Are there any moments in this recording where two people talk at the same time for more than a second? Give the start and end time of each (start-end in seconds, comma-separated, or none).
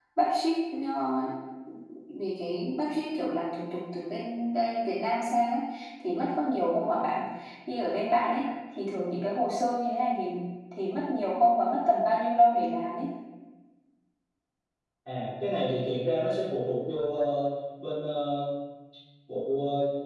none